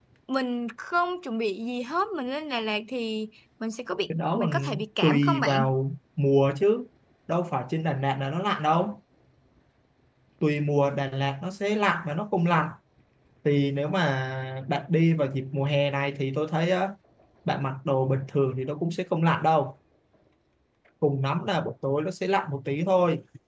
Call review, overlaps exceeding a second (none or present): present